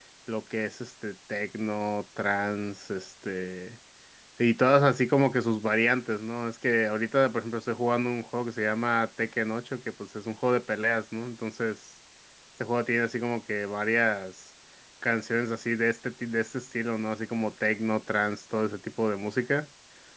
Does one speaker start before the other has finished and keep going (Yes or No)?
No